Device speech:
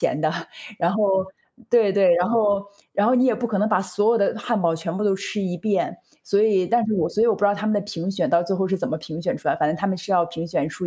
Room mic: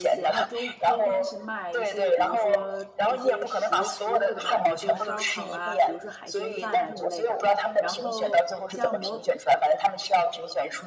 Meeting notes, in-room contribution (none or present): present